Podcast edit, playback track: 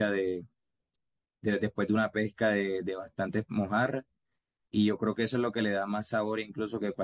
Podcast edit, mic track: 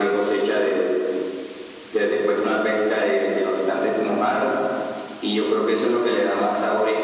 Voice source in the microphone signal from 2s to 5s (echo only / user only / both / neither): echo only